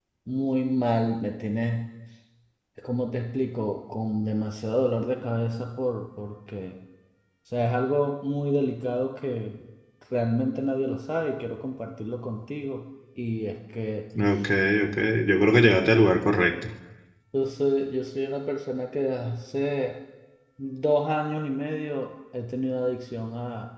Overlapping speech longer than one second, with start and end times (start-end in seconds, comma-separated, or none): none